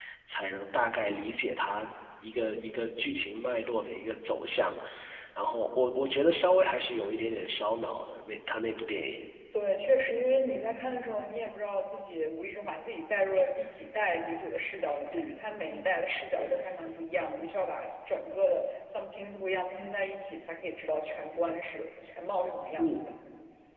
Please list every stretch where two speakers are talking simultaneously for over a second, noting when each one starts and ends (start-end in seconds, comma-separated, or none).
none